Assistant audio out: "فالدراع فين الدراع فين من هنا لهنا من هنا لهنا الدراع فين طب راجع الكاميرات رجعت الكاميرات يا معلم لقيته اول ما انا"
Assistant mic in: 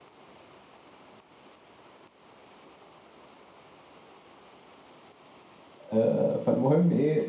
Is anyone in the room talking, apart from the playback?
Yes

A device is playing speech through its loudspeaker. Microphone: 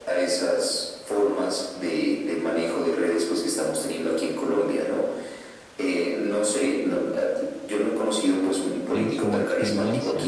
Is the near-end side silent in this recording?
No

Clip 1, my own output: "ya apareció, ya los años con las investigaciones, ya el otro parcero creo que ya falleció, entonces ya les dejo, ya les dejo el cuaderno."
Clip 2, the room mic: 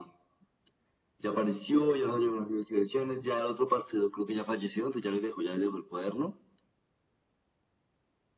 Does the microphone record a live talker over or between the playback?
No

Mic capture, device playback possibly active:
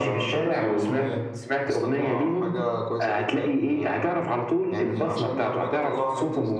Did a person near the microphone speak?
No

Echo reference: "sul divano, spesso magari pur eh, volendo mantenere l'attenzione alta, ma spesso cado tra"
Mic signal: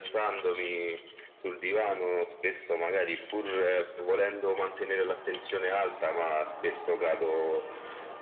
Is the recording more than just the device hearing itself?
No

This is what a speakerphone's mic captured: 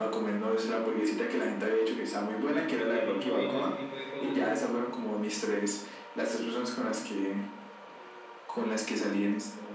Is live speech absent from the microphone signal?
No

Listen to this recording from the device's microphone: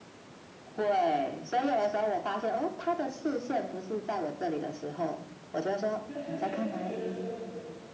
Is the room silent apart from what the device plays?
No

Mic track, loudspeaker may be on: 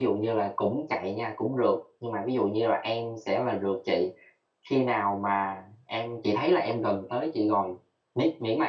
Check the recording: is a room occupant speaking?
Yes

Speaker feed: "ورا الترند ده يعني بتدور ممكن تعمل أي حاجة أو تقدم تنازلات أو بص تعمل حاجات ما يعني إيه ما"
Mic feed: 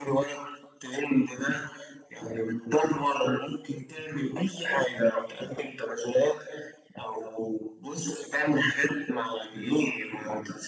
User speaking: No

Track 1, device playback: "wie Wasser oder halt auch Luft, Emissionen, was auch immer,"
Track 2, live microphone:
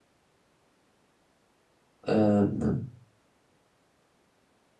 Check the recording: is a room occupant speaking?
Yes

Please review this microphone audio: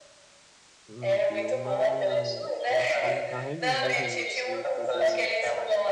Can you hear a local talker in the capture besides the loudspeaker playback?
Yes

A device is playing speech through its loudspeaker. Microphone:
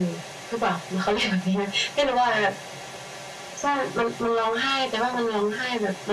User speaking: No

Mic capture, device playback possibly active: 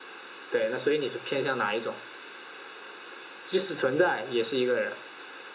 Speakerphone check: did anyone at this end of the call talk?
No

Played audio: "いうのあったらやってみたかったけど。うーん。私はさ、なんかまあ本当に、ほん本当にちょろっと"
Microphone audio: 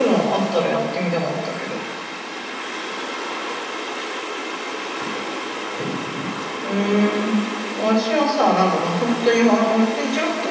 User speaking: No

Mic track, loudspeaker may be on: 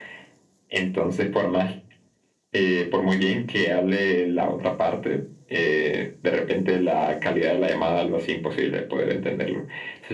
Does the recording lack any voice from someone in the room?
Yes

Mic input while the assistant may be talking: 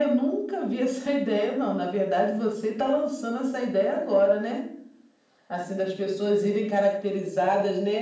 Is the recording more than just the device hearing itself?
No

